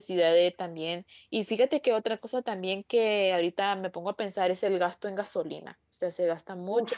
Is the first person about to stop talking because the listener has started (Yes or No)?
No